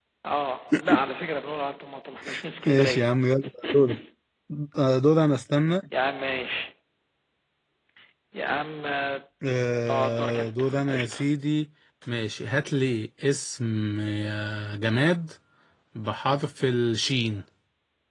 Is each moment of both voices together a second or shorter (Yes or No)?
No